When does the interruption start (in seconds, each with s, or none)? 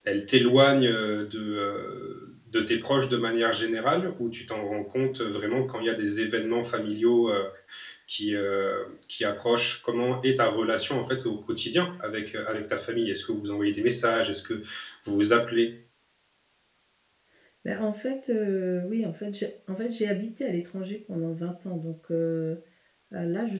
none